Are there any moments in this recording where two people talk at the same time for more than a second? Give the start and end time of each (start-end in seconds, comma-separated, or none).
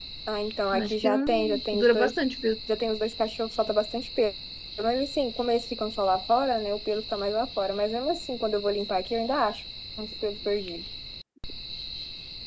0.7-2.1